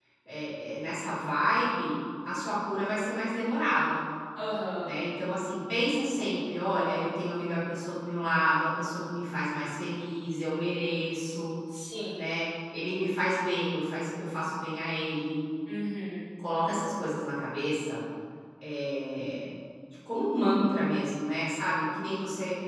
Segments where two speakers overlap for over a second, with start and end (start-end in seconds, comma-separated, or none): none